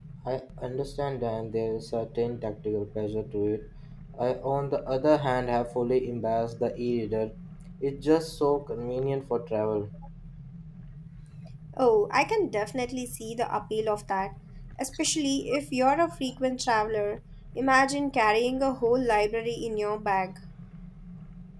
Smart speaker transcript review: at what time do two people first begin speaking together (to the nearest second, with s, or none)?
none